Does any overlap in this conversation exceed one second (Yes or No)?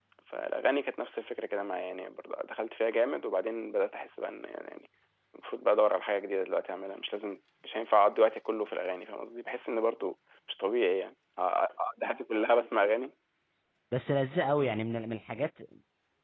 No